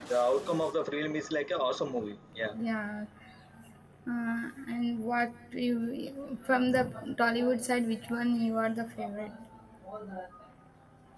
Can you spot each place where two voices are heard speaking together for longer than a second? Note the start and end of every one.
none

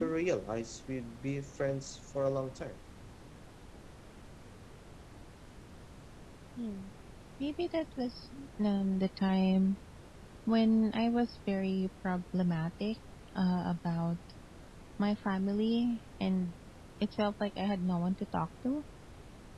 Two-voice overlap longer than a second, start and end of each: none

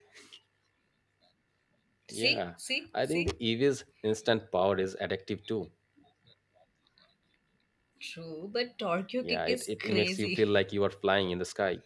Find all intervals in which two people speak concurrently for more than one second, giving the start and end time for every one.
9.2-10.6

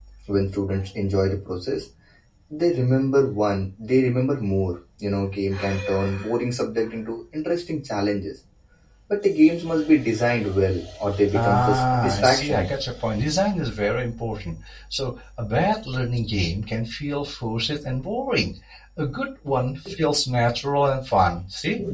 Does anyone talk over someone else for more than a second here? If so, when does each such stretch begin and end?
11.3-12.6

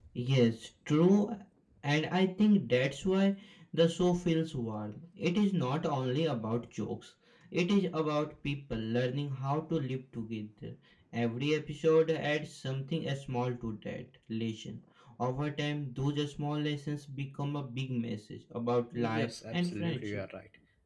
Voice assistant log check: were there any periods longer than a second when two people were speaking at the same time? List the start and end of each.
18.9-20.2

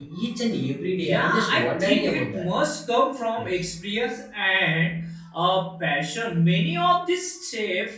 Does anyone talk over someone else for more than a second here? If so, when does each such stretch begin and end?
0.9-2.6

